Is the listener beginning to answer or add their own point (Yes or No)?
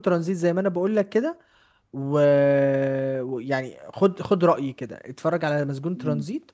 Yes